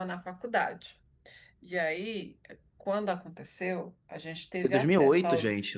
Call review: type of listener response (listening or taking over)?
taking over